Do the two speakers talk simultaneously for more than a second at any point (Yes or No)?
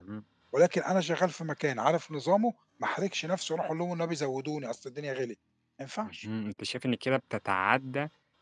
No